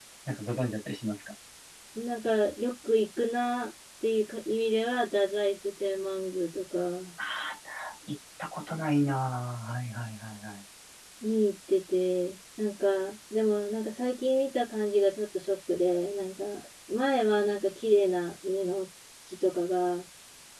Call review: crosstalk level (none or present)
none